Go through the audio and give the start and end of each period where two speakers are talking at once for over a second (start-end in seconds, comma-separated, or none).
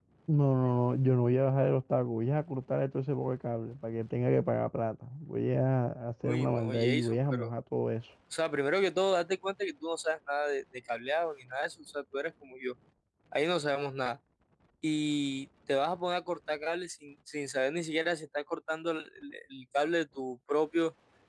6.2-7.5